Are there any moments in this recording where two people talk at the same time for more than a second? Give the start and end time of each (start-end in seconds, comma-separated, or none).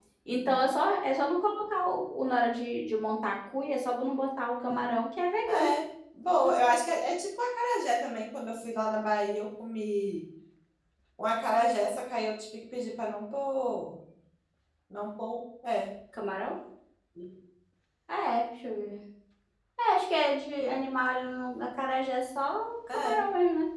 none